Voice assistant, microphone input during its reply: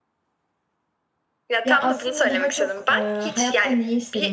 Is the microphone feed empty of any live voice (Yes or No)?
No